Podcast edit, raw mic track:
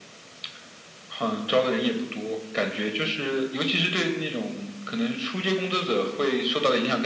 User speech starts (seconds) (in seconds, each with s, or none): none